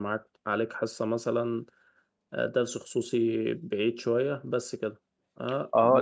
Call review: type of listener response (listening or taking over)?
taking over